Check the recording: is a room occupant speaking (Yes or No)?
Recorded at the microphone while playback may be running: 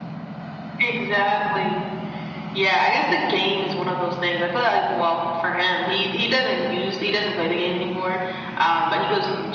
No